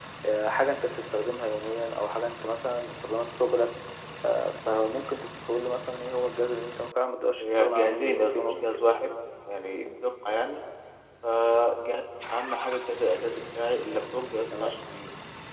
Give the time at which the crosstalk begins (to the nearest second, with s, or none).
7 s